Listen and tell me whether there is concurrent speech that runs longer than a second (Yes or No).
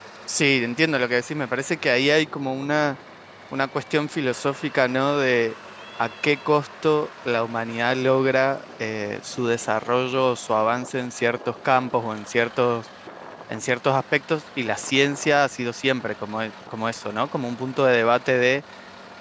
No